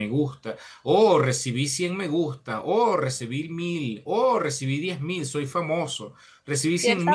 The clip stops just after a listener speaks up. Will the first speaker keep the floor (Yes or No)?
No